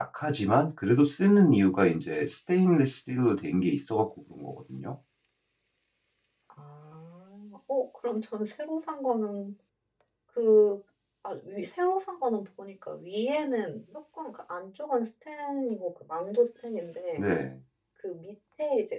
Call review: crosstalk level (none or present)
none